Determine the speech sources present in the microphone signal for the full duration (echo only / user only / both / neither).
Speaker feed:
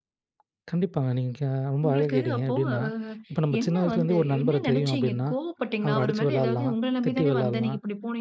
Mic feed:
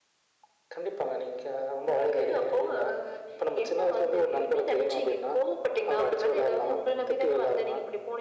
echo only